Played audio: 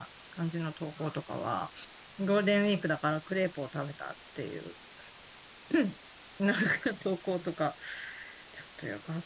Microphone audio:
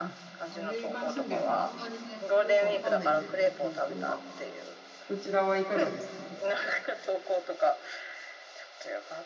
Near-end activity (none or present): present